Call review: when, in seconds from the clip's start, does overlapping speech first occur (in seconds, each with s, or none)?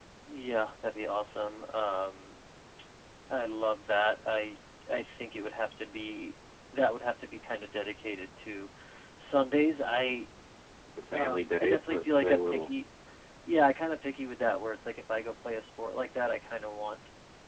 11.1 s